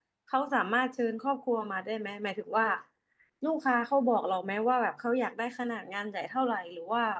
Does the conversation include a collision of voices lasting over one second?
No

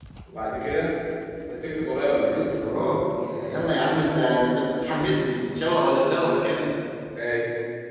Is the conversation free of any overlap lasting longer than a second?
Yes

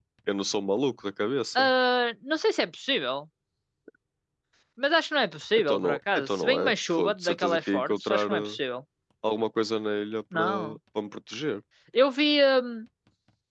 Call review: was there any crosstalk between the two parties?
Yes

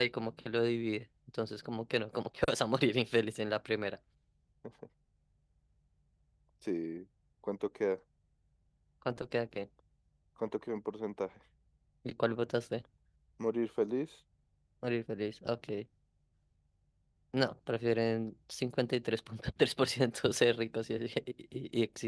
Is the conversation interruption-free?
Yes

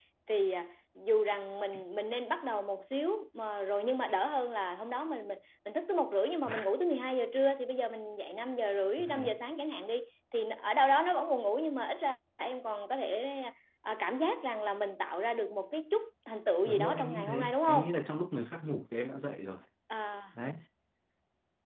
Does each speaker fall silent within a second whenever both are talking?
No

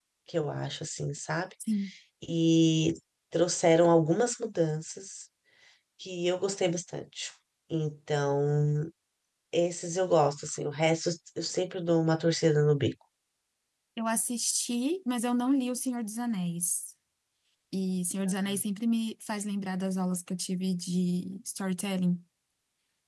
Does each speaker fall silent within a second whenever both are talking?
Yes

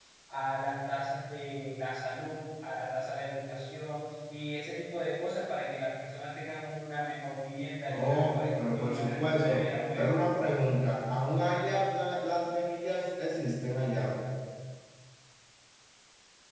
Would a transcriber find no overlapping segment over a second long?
No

